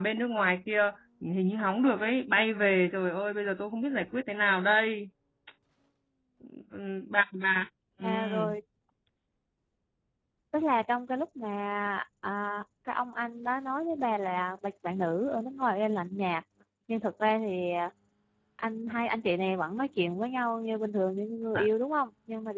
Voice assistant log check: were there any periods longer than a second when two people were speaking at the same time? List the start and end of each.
none

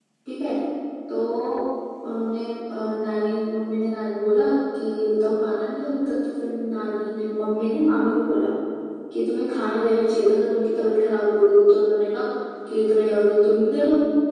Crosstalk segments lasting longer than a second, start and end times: none

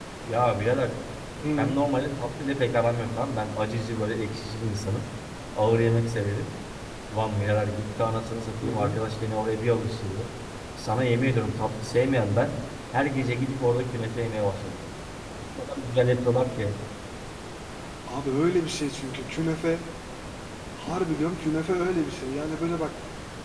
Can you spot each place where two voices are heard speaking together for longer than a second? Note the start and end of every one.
none

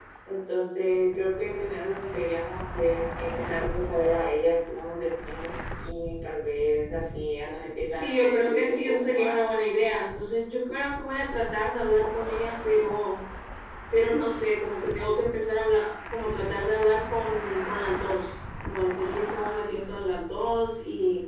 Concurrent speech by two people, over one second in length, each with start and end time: 7.8-9.4

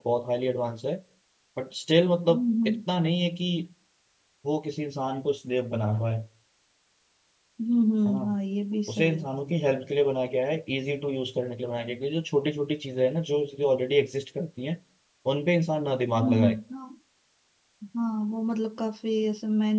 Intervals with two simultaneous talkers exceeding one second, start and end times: none

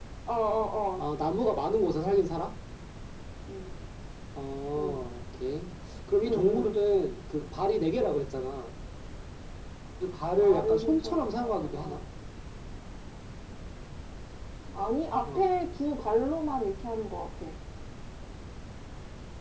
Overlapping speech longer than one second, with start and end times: 10.3-12.0

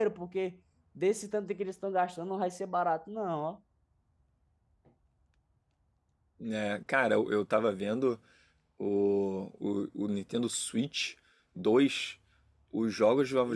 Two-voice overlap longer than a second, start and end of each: none

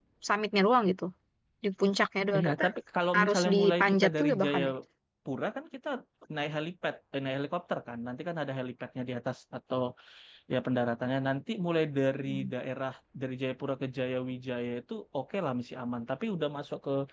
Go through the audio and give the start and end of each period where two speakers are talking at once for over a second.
3.2-4.6

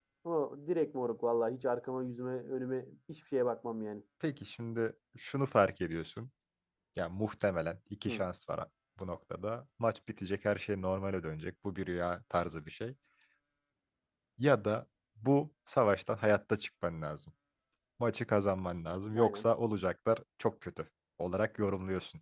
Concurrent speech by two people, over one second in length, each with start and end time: none

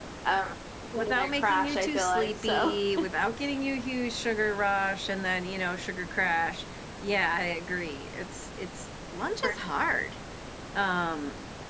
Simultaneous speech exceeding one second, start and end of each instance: 0.9-2.8

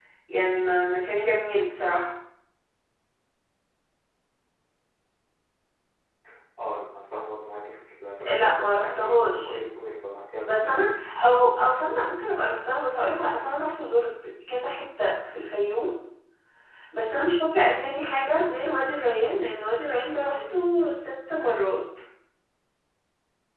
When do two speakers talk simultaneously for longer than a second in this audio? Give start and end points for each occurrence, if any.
8.2-9.6

